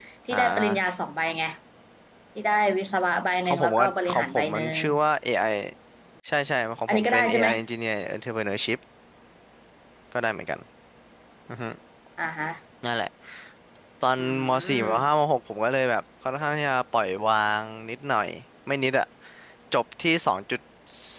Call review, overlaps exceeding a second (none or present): present